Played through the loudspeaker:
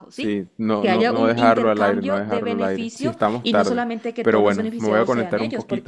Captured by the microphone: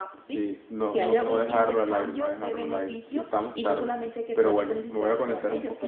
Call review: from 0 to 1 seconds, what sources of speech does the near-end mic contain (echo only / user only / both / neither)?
echo only